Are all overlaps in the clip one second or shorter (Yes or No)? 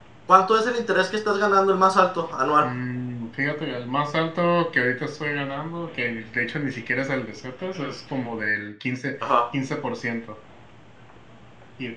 Yes